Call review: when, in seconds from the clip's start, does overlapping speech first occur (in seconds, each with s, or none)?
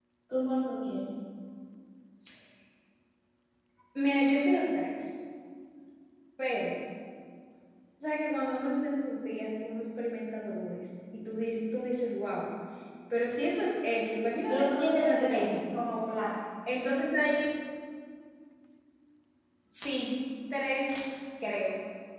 14.4 s